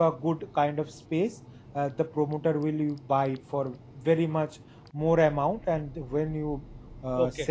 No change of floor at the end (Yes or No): Yes